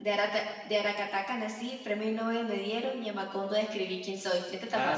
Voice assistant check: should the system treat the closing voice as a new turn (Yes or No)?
Yes